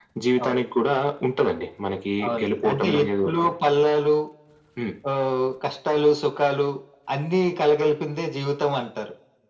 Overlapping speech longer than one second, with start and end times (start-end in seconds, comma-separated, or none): 2.3-3.5